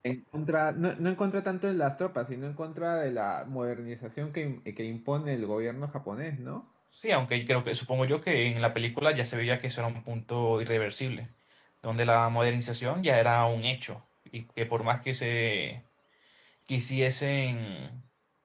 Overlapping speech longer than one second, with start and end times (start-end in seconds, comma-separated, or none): none